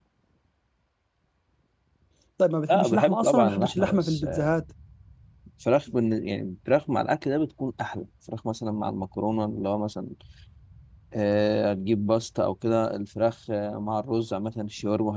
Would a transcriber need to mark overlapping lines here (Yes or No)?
Yes